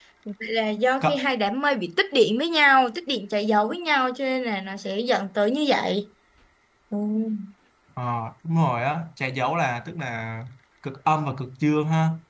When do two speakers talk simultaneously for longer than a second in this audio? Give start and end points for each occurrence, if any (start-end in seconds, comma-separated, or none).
none